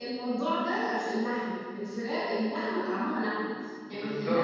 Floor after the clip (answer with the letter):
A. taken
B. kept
B